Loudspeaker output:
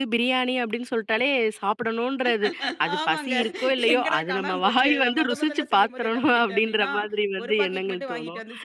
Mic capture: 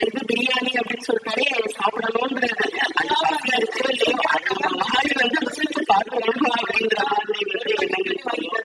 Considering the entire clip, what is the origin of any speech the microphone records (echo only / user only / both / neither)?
echo only